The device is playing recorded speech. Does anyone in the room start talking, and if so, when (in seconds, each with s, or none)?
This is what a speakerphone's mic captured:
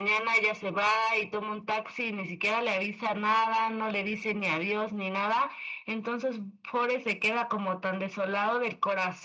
none